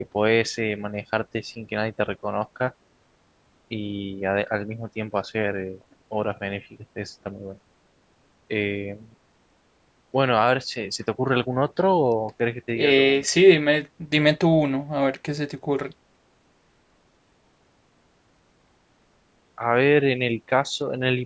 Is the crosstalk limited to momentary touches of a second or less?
Yes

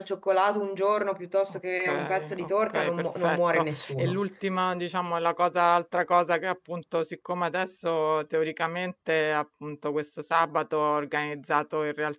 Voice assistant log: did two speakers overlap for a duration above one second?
Yes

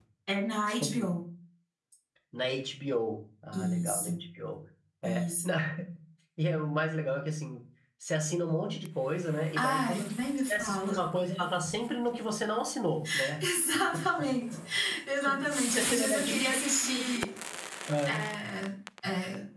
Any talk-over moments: Yes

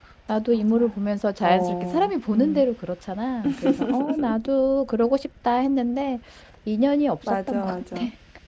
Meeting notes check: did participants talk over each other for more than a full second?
Yes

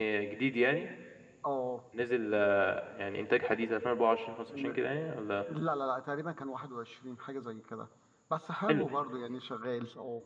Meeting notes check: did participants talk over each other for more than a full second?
No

